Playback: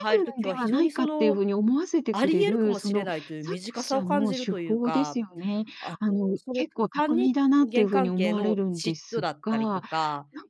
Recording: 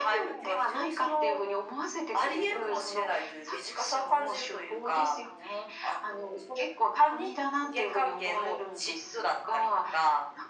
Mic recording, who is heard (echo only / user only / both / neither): echo only